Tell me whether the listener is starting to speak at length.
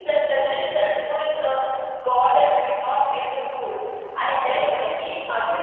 No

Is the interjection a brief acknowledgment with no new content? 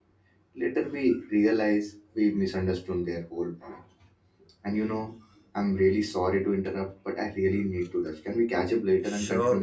No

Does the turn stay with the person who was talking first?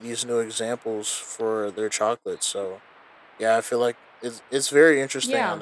No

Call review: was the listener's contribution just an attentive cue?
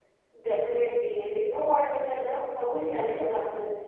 Yes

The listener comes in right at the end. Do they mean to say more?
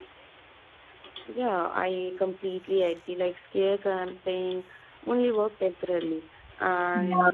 No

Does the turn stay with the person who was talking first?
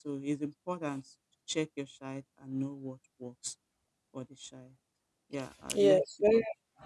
No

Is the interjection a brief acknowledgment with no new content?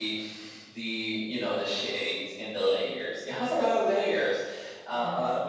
Yes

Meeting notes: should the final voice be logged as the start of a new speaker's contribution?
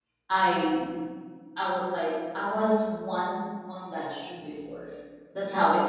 No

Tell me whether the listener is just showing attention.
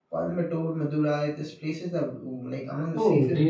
No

